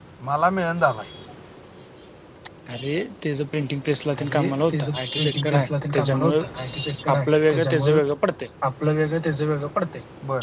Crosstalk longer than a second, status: present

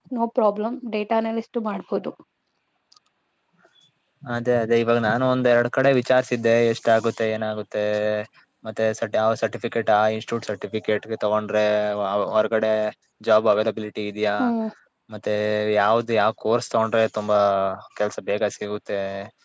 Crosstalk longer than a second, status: none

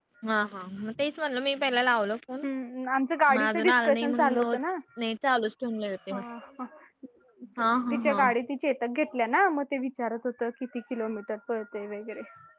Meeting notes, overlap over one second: present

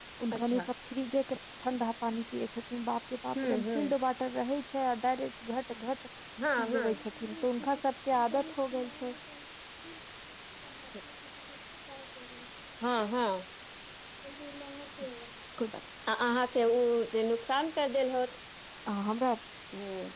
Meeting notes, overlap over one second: none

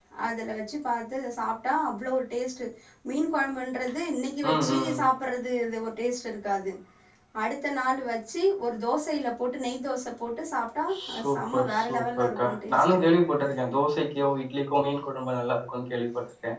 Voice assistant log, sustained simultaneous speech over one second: present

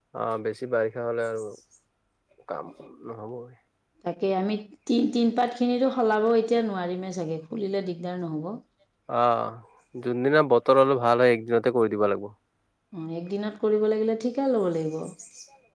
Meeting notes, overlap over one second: none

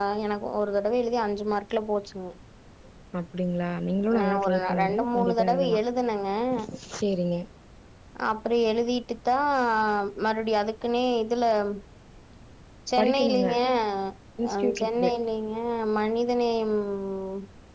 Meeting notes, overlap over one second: present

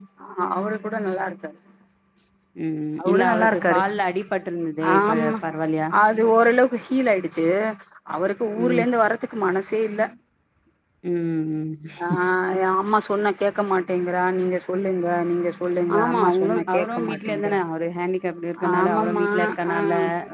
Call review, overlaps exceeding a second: present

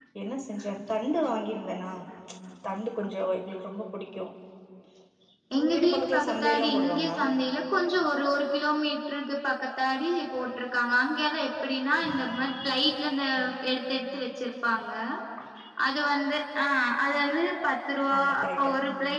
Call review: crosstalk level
present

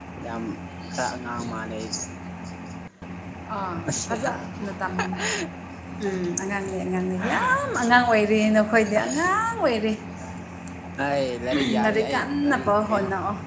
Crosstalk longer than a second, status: present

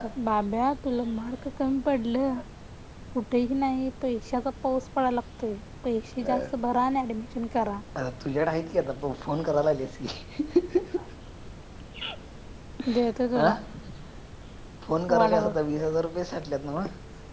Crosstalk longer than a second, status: none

